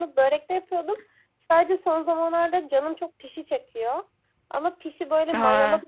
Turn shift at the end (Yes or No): No